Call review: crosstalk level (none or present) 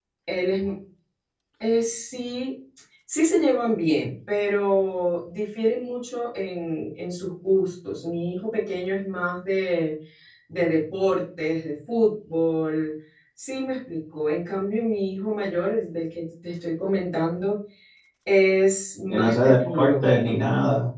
present